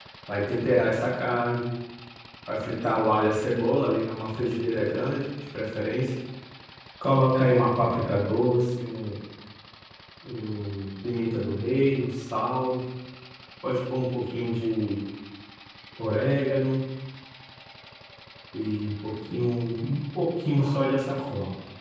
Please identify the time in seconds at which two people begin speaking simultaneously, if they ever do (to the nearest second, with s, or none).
none